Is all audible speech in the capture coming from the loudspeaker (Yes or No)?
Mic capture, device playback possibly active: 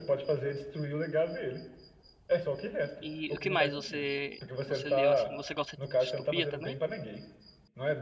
No